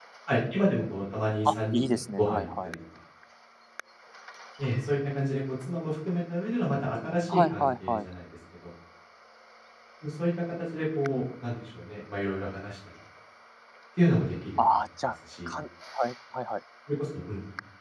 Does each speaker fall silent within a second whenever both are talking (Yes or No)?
No